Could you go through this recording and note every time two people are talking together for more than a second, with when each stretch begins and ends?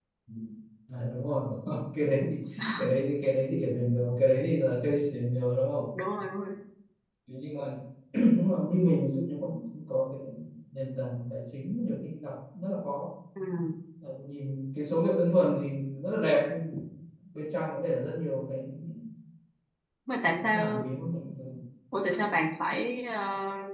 none

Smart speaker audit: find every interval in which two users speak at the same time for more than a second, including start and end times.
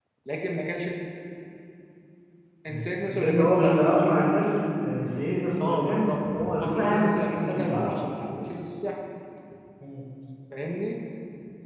2.7-3.9, 5.6-7.8

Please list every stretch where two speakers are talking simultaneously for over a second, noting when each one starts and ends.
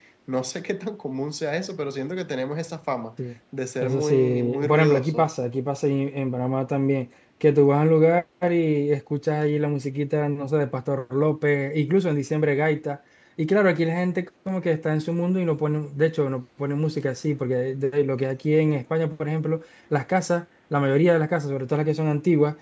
3.8-5.3

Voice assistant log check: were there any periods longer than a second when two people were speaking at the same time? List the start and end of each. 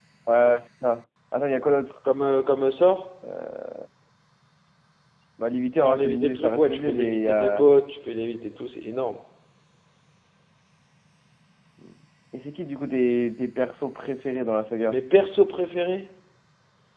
5.8-7.6

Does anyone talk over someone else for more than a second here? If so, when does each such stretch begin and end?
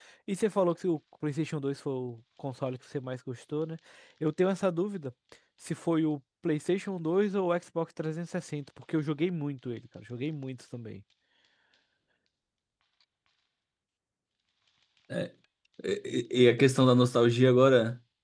none

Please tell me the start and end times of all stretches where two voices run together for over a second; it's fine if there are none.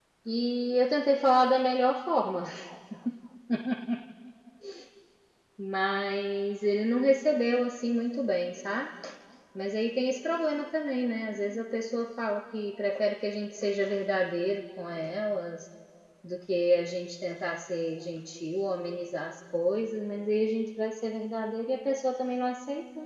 none

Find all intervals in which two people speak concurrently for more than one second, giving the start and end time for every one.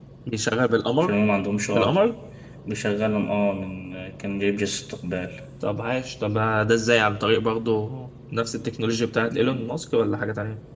none

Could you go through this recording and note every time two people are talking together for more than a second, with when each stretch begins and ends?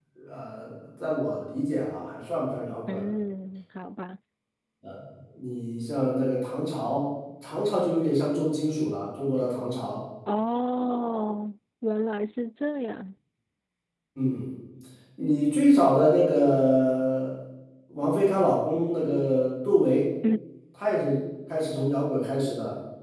none

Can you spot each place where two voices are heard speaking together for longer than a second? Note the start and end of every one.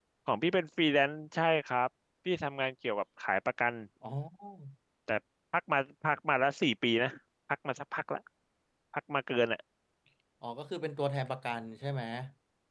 none

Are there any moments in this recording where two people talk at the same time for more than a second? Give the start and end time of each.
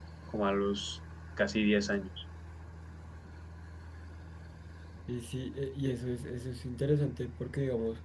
none

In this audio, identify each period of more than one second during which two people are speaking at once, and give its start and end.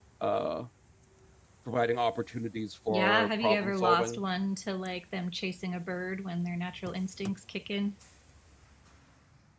2.9-4.2

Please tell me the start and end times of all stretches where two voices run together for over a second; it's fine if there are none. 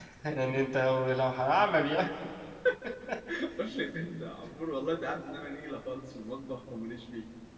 none

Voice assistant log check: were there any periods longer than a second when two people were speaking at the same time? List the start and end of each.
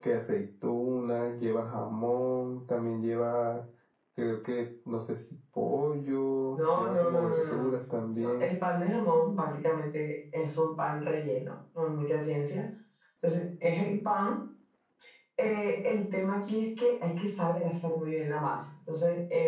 6.6-8.5

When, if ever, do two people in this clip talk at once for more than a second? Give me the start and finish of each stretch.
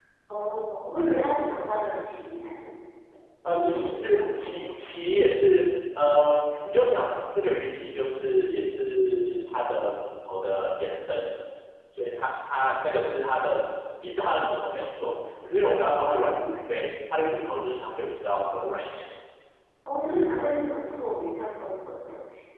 3.5-4.9

